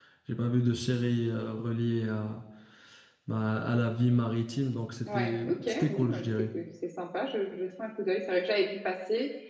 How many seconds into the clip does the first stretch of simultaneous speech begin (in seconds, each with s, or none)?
5.1 s